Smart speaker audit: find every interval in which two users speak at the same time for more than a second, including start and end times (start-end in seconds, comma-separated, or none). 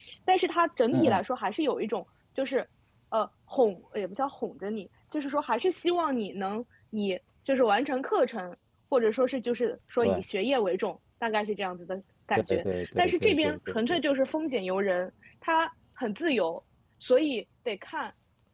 12.5-14.0